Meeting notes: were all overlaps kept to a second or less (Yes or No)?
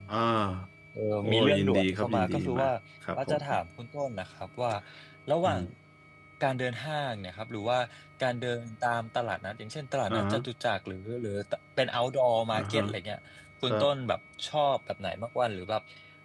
No